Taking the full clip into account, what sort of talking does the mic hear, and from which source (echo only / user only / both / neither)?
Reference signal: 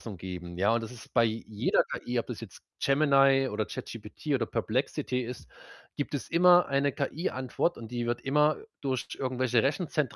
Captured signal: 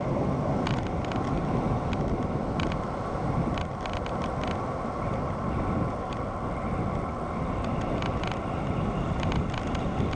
neither